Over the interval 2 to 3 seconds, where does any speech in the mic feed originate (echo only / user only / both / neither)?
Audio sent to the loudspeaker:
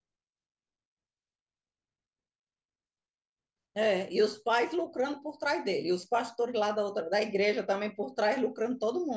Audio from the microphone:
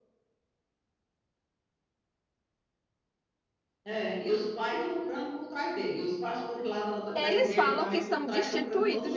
neither